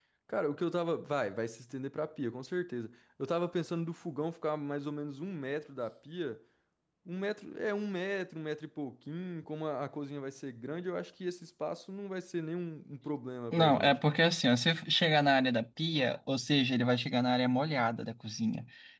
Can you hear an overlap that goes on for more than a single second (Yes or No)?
No